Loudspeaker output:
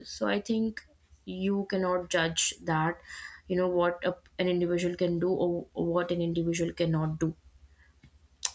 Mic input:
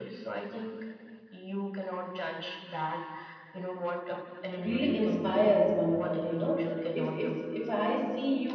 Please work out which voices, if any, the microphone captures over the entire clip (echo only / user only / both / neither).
both